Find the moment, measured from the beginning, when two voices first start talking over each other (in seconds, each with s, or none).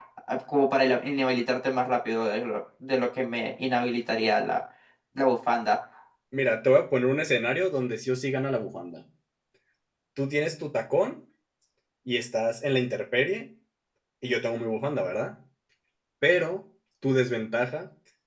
none